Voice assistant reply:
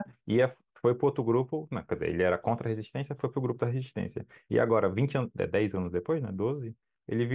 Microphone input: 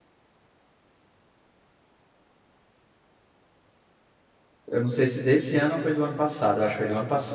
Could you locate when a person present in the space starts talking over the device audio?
4.7 s

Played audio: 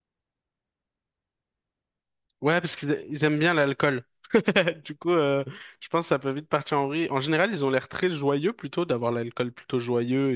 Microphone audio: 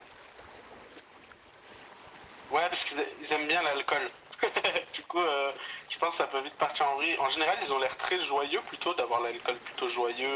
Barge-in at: none

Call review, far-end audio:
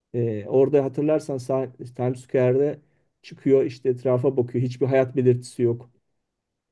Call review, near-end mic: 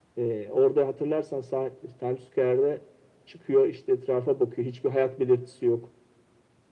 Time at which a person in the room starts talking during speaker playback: none

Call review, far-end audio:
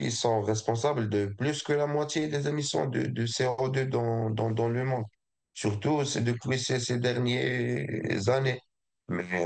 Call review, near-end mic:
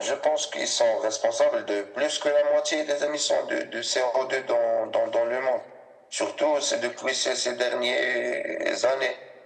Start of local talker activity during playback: none

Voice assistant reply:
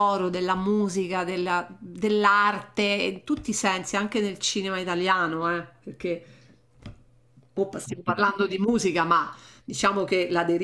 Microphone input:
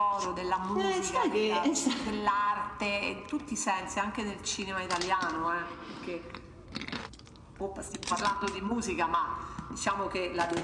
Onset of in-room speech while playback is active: 0.7 s

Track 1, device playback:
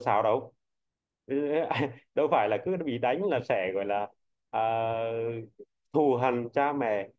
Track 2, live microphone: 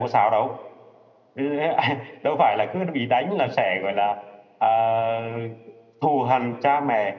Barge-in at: none

